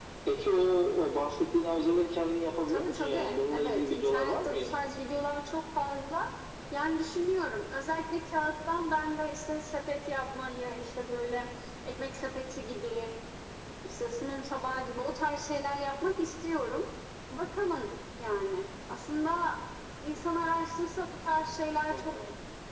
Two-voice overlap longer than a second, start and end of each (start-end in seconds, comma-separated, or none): 2.7-4.8